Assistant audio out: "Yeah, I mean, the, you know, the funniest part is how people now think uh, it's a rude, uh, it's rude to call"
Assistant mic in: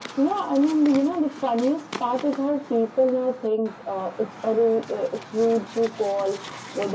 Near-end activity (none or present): none